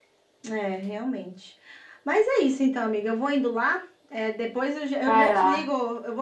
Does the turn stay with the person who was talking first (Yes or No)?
Yes